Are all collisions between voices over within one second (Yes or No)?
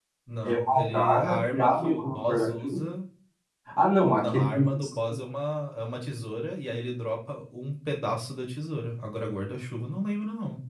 No